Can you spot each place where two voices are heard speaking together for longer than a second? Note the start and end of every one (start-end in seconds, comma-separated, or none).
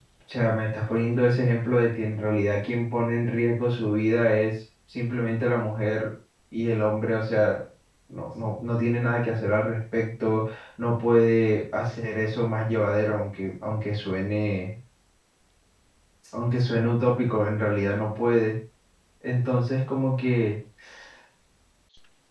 none